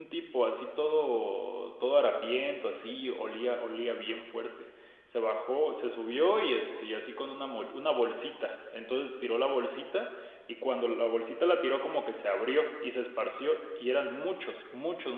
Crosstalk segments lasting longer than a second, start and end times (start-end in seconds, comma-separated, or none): none